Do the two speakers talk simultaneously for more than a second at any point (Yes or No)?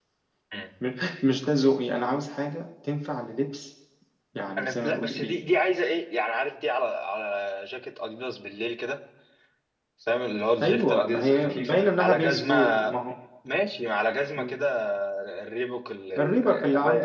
Yes